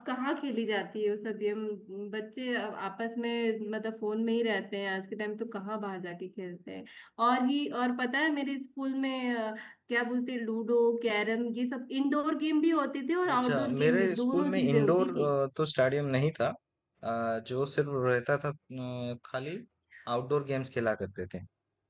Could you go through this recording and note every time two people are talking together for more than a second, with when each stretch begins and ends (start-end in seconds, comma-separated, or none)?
13.3-15.1